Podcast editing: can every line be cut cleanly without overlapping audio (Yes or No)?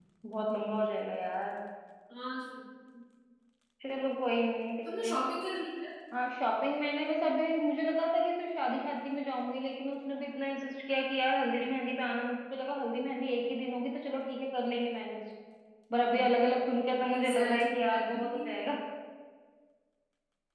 No